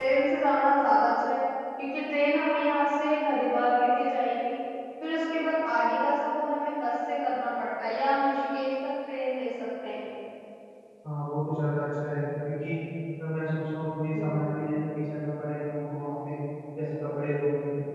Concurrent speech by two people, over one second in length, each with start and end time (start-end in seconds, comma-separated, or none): none